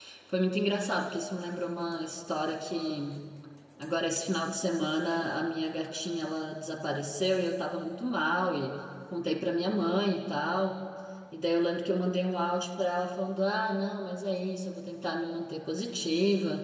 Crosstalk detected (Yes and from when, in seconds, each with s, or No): No